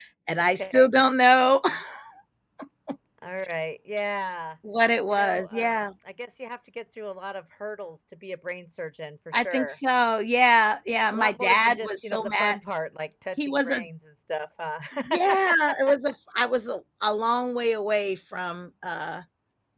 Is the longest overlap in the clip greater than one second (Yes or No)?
Yes